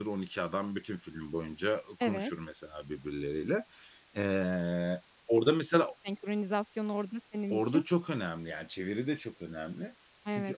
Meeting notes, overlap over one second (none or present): none